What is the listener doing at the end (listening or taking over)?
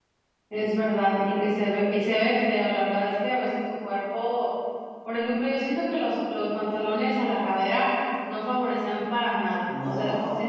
listening